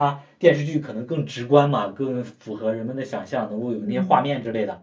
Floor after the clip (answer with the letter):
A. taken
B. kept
B